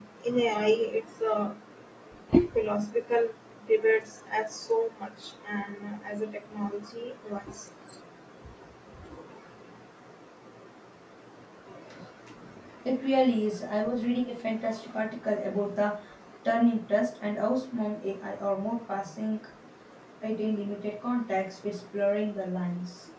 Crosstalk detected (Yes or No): No